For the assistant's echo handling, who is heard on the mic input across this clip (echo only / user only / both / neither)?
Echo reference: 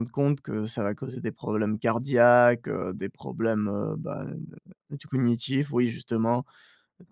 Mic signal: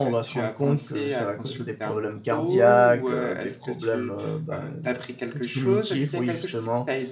both